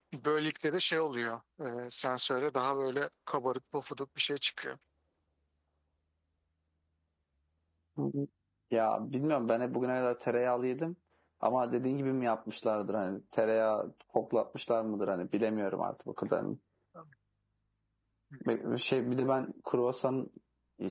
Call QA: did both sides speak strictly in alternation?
Yes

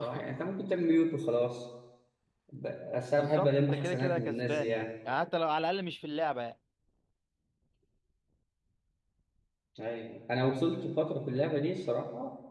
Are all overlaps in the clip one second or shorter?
No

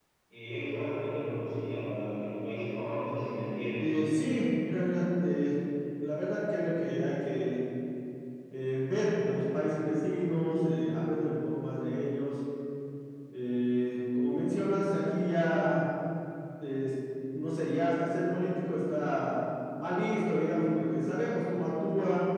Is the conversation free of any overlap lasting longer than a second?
Yes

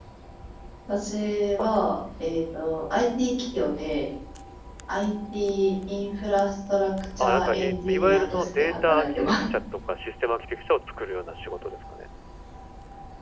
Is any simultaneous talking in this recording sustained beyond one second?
Yes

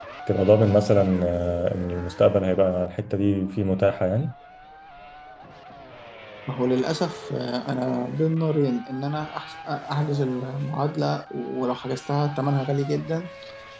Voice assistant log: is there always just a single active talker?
Yes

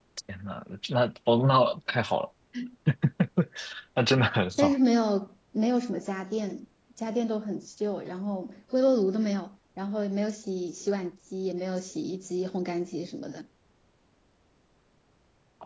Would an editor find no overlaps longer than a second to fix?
Yes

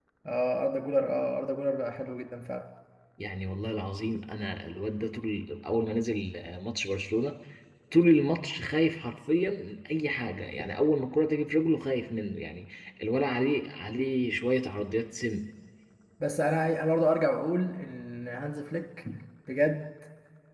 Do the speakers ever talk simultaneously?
No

